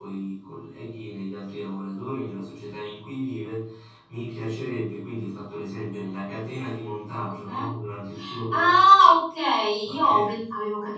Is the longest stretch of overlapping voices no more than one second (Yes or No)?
Yes